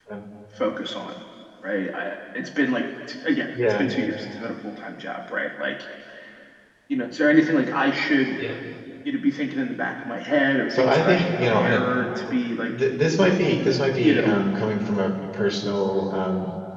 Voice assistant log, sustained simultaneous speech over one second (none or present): present